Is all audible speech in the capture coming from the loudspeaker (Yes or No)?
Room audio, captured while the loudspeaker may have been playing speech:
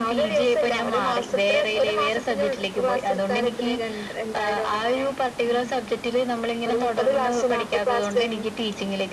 Yes